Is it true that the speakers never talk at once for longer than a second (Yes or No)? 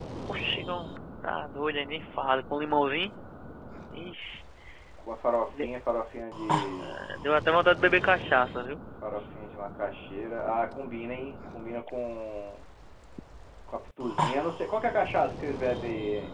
Yes